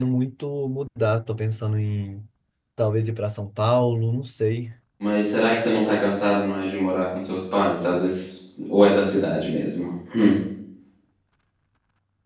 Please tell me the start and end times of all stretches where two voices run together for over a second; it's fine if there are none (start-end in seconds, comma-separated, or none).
none